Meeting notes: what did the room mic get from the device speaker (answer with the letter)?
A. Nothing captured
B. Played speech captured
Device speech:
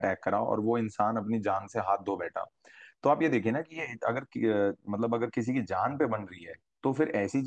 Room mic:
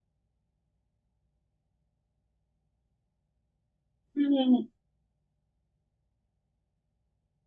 A